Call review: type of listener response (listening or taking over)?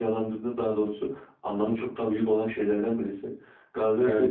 listening